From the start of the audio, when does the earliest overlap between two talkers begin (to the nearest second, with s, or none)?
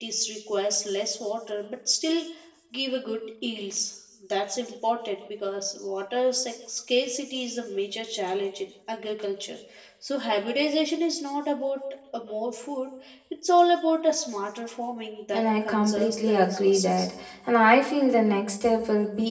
15 s